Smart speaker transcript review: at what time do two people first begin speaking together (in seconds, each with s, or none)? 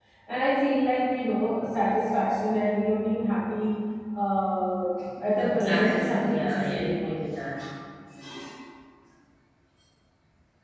5.2 s